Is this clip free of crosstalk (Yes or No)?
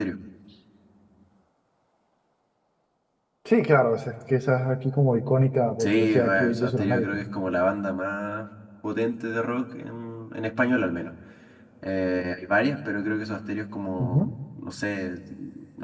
No